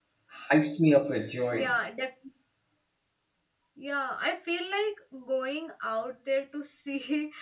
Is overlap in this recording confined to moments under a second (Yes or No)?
Yes